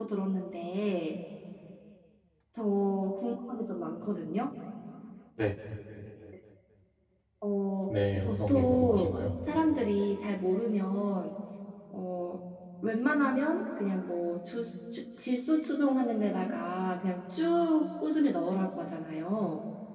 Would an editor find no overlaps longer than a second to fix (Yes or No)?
No